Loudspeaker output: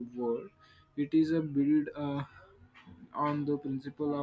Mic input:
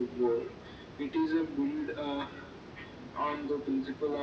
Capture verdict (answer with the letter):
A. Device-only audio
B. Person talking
A